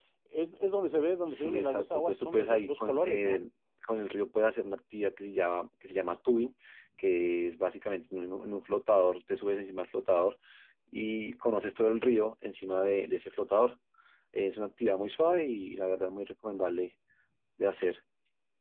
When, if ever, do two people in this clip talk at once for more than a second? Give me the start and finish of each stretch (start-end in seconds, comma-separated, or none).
1.3-3.4